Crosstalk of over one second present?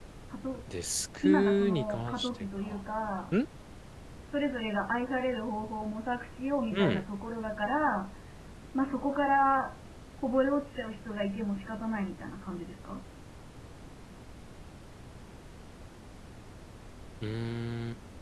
Yes, from 1.2 s

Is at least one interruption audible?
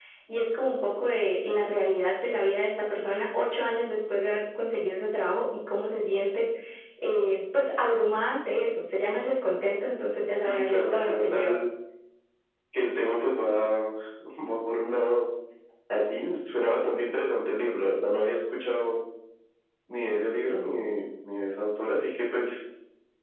Yes, from 10.3 s

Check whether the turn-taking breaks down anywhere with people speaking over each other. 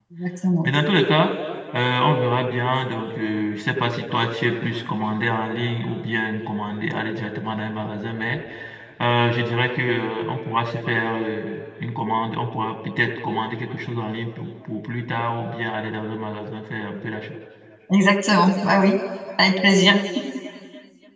No

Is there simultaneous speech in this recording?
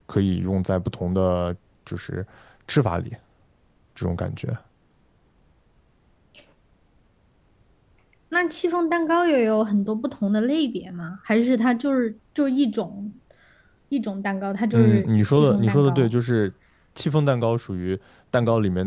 Yes, from 14.7 s

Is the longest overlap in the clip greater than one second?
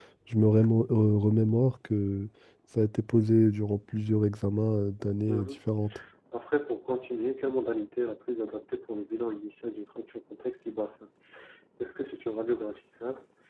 No

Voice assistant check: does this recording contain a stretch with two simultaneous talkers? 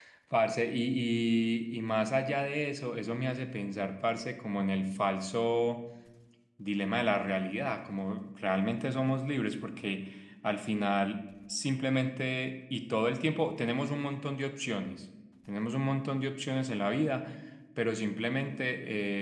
No

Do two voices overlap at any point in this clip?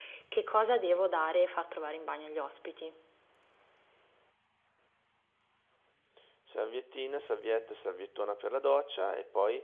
No

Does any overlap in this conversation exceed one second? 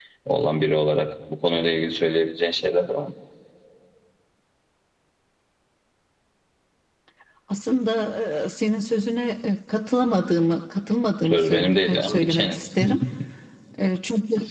Yes, from 11.2 s

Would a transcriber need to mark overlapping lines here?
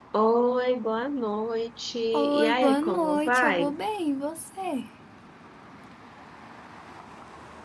Yes, from 2.1 s

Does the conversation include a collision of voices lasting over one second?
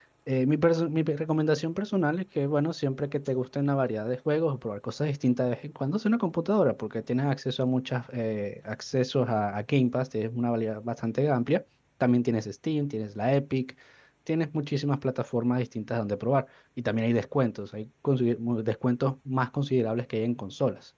No

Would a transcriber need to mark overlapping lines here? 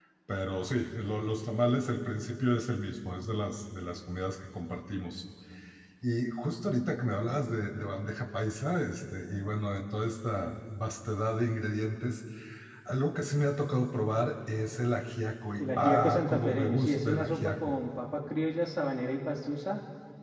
Yes, from 15.6 s

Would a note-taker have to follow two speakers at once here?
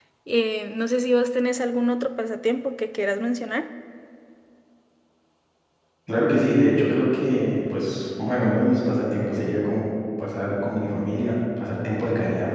No

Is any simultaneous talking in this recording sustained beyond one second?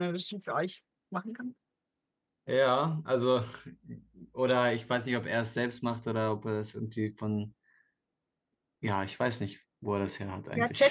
No

